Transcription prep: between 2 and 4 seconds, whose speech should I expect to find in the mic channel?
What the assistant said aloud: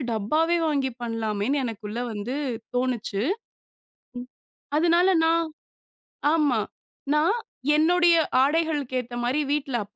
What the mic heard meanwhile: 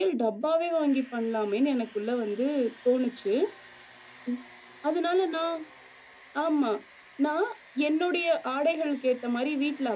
echo only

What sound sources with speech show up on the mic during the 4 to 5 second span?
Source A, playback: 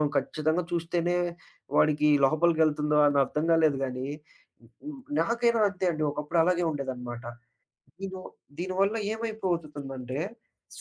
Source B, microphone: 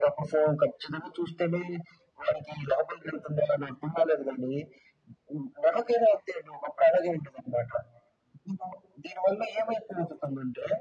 echo only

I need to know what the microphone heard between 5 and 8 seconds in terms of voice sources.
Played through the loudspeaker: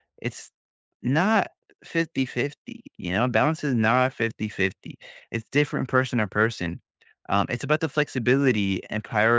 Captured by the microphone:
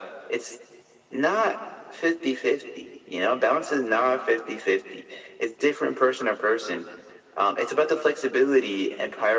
echo only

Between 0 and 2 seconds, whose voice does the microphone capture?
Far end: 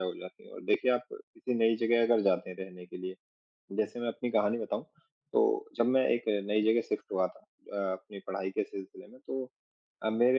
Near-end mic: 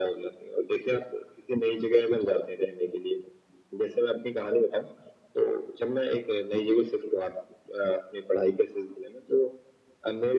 echo only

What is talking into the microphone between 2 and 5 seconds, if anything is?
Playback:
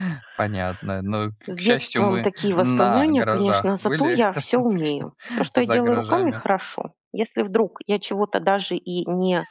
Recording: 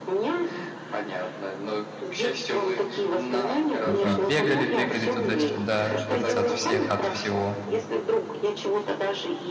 both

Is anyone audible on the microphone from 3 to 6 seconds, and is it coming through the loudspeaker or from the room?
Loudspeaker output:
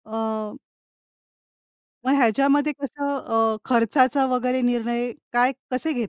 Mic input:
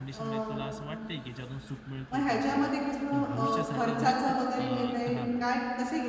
both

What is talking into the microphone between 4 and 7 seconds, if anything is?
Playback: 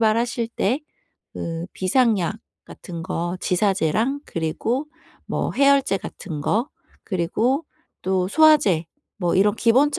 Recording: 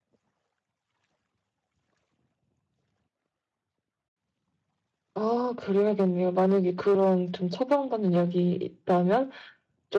user only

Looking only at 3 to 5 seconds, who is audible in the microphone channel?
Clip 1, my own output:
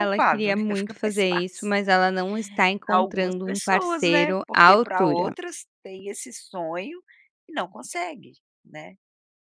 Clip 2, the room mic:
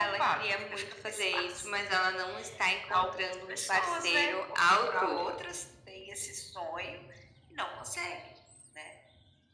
echo only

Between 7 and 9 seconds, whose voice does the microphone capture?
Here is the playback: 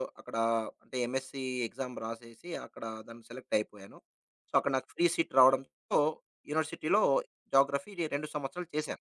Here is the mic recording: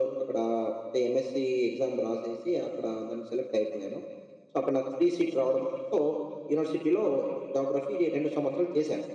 echo only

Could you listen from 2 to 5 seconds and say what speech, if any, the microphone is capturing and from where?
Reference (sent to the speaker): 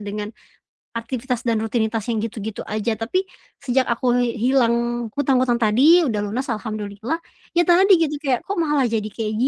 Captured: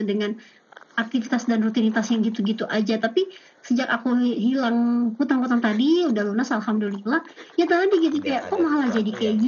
echo only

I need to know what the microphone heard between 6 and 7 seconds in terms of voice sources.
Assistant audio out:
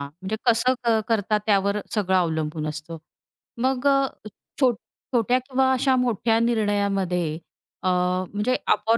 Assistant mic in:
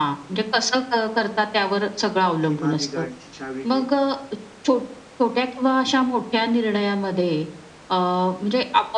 echo only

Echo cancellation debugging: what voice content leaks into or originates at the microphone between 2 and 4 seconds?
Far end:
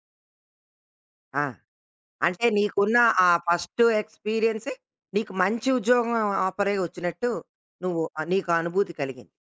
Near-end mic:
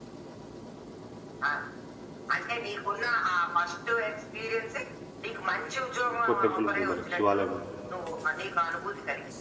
echo only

